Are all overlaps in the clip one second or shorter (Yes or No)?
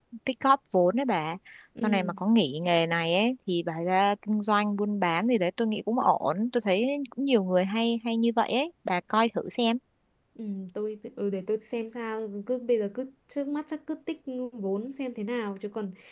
Yes